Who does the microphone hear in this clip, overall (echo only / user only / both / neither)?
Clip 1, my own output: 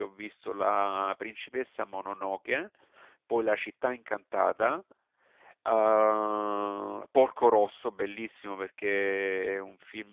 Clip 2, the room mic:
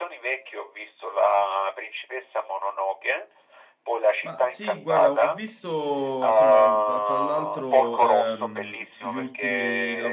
both